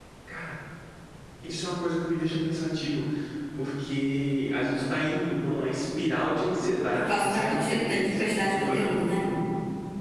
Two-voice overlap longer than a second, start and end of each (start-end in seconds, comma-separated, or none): 6.9-9.0